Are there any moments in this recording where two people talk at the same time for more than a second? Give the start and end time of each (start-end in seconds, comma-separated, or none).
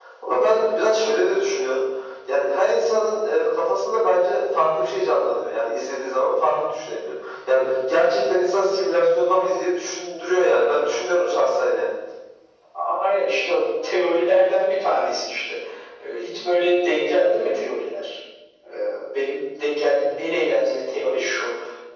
none